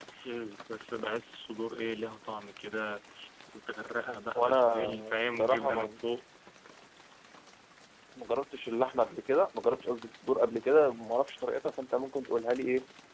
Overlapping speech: Yes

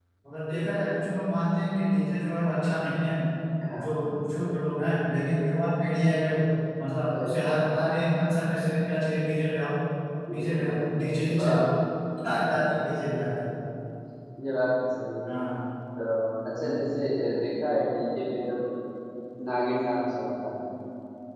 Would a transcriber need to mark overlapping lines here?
Yes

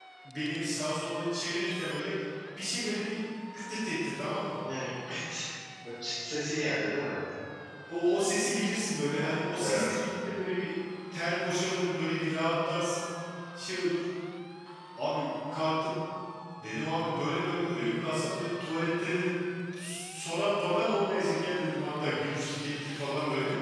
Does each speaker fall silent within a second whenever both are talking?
Yes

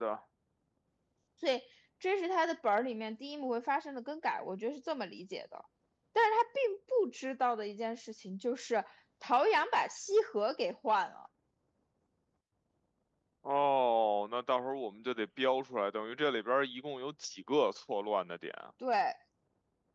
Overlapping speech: No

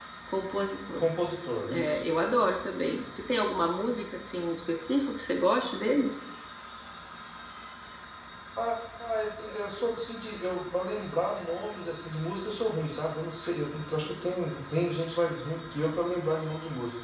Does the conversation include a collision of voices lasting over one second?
No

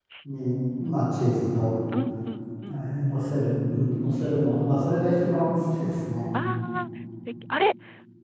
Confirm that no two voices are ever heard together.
Yes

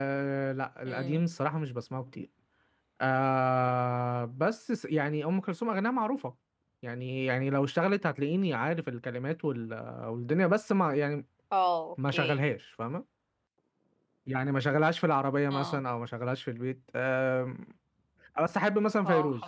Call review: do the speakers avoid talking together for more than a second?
Yes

